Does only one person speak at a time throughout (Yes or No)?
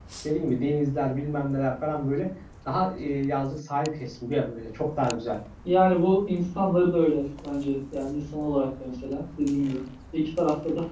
Yes